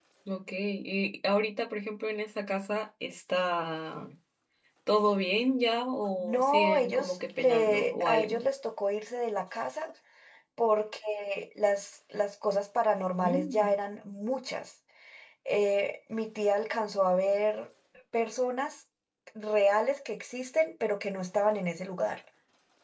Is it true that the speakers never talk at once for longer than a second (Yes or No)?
No